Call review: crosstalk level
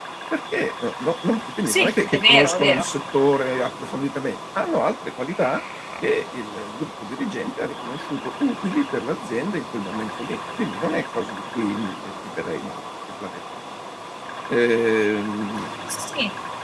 present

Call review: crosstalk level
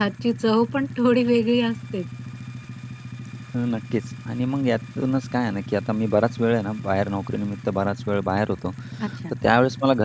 none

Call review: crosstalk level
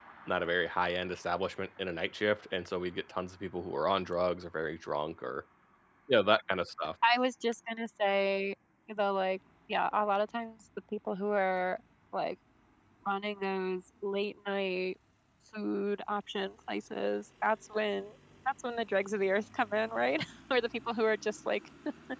none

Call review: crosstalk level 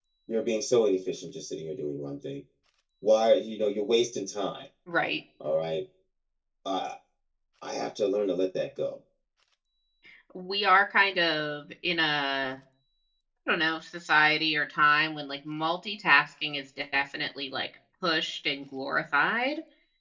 none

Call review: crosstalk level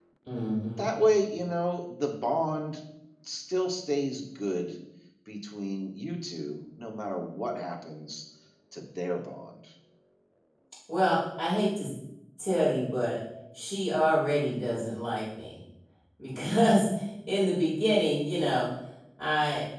none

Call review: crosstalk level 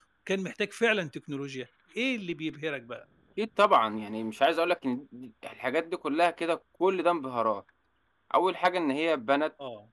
none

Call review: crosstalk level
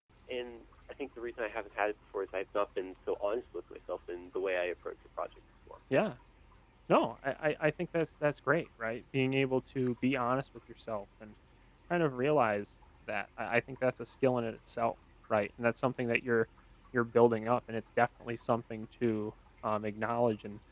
none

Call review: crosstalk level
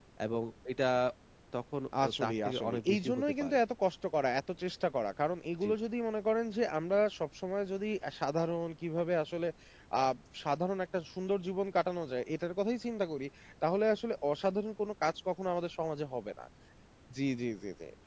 present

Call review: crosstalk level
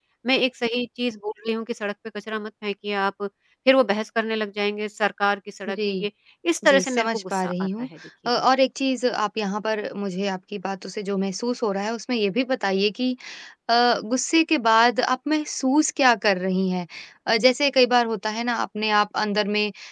present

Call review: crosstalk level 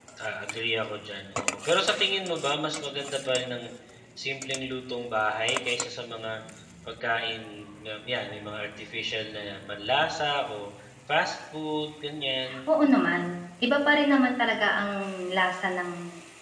none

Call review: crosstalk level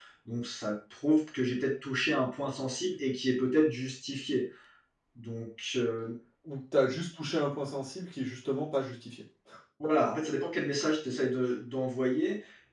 none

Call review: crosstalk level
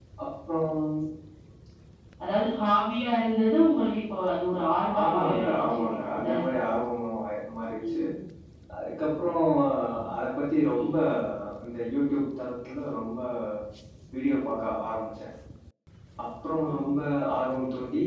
present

